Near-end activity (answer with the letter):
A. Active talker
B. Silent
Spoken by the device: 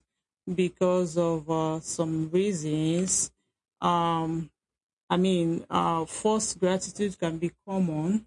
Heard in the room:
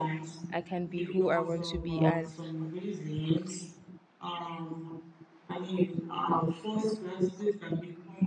A